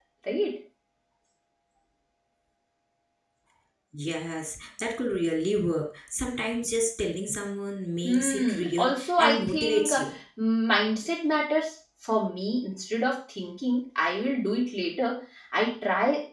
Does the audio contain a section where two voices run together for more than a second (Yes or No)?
Yes